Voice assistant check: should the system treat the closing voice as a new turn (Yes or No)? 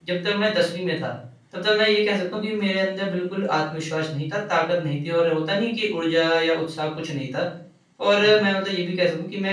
No